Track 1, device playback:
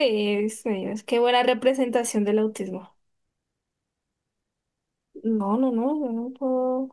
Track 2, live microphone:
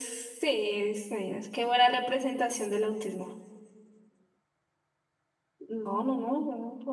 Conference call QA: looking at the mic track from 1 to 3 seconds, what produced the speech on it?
echo only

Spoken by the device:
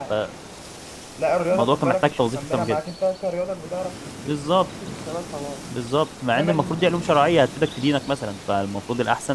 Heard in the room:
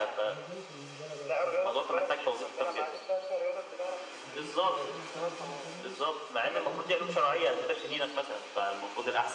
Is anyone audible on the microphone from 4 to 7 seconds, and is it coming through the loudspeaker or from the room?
both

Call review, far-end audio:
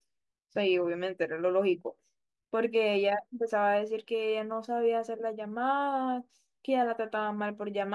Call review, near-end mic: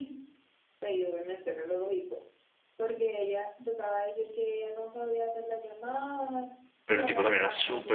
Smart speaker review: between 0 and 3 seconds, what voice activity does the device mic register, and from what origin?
echo only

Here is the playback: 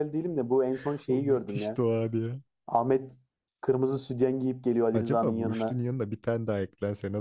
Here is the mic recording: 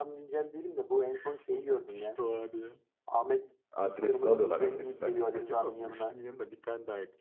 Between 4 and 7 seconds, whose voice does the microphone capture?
both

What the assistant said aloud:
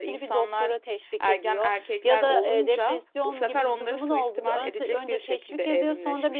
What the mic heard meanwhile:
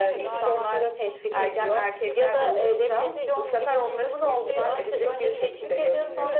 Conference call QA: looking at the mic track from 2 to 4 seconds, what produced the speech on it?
both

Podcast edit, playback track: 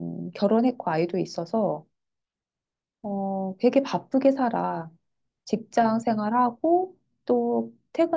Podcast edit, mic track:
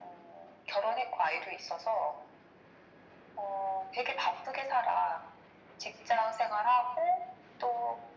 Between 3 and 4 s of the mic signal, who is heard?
echo only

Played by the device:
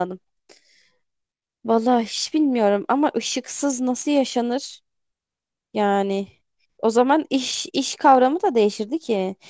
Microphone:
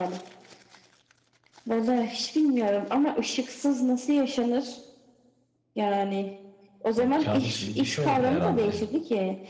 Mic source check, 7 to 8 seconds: both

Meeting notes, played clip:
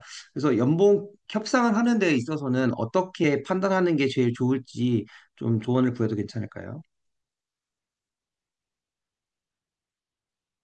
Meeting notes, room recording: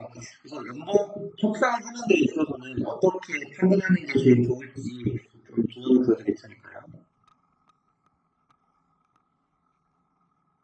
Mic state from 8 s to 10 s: neither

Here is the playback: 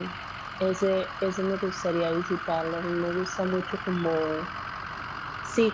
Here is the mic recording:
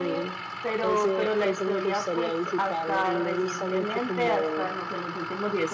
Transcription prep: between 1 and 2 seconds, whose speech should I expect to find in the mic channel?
both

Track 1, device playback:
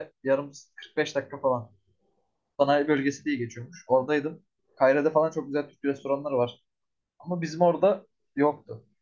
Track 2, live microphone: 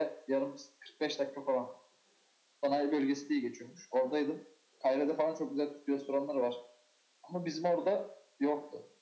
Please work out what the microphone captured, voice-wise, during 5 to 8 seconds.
echo only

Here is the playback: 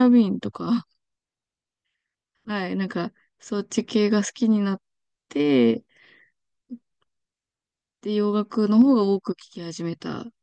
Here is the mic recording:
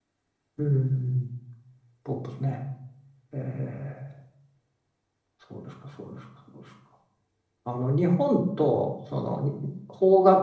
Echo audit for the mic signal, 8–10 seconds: user only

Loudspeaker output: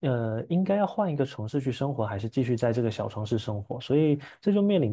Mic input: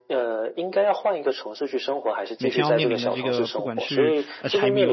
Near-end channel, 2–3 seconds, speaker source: both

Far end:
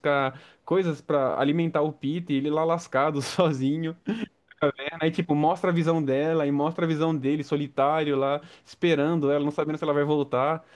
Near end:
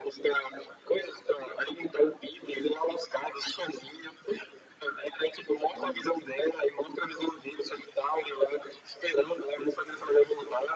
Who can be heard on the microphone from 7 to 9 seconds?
echo only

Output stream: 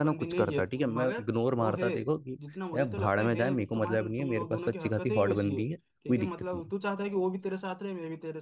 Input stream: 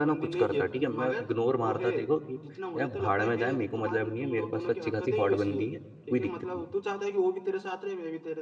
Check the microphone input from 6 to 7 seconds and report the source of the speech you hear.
echo only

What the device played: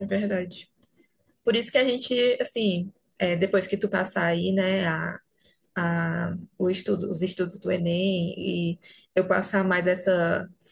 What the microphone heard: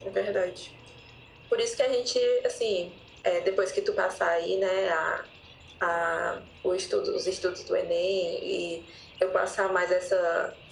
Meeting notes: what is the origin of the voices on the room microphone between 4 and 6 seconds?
echo only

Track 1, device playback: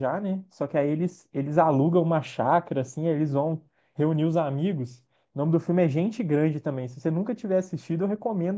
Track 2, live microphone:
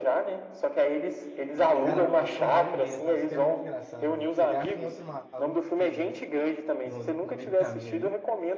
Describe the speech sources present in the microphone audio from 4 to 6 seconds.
both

